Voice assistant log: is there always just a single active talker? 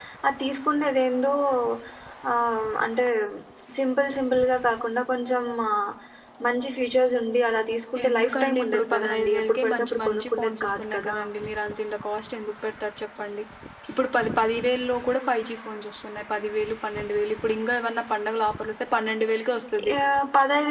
No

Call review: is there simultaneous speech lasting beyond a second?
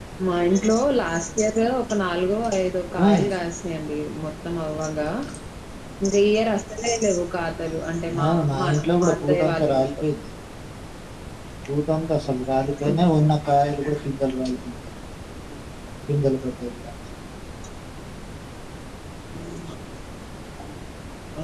Yes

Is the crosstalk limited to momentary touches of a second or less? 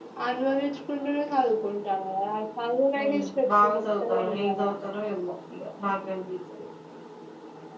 No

